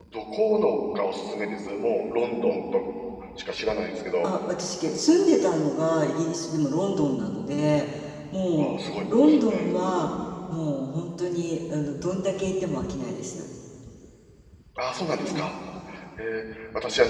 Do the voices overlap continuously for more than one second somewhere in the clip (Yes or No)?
No